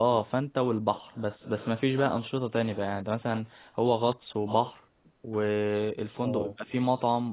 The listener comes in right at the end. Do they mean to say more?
No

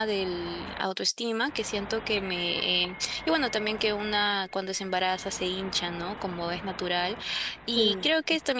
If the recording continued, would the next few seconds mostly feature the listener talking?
No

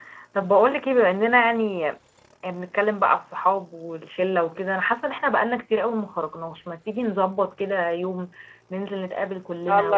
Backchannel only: Yes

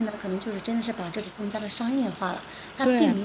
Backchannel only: Yes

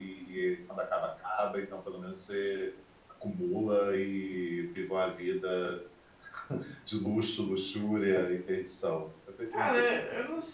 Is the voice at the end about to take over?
Yes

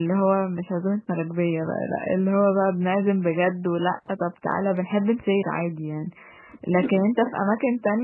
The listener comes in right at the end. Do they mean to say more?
No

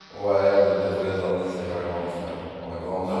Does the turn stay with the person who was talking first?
No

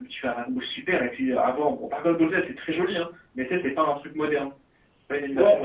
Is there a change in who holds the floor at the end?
Yes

